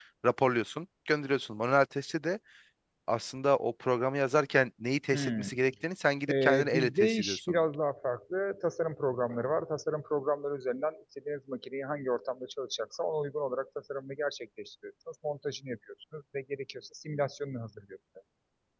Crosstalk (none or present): present